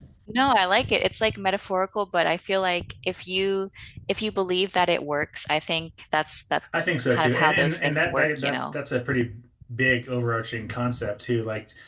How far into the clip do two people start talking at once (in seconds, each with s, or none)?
7.1 s